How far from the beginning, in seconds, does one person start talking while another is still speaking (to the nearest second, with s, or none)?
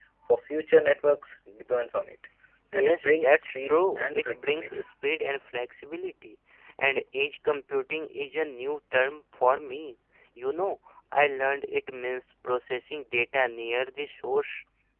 3 s